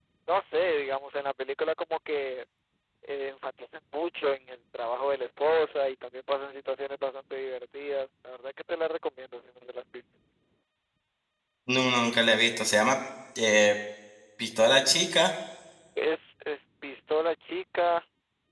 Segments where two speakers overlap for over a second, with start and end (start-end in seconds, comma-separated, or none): none